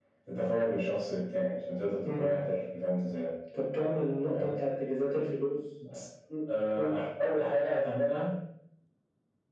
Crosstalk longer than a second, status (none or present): none